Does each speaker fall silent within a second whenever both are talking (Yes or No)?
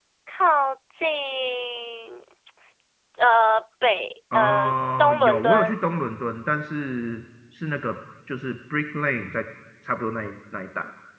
No